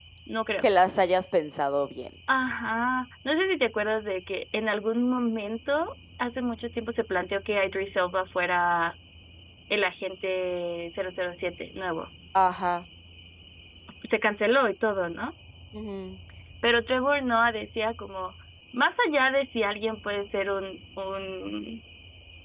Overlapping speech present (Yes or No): No